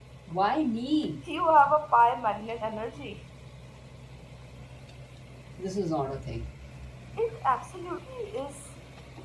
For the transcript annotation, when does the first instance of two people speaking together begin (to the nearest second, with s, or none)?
none